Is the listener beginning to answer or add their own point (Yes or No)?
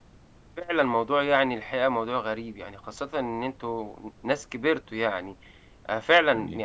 No